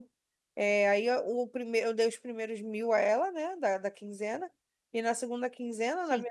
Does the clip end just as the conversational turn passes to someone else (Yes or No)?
No